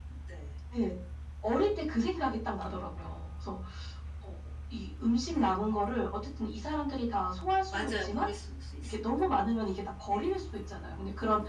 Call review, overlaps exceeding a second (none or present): none